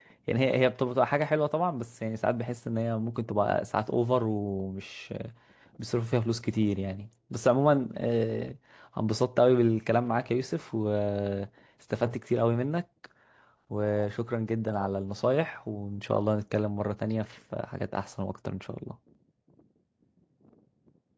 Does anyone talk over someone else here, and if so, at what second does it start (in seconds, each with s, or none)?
none